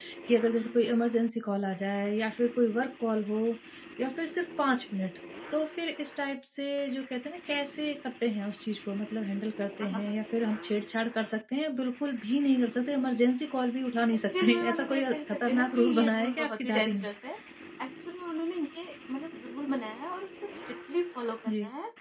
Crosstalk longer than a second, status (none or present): present